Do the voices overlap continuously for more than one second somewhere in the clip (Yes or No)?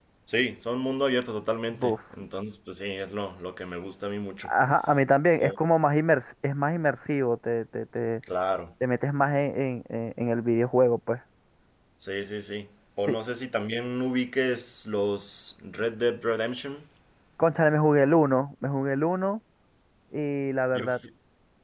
No